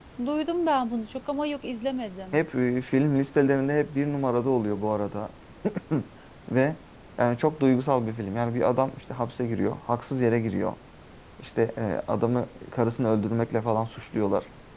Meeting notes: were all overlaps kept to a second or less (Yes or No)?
Yes